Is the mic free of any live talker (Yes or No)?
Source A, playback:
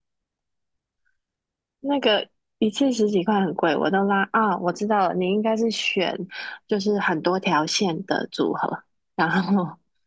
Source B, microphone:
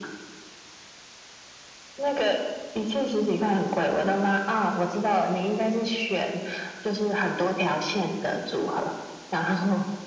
Yes